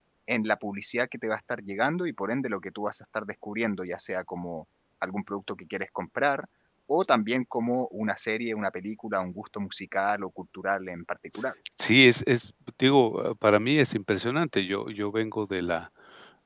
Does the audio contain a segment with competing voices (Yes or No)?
No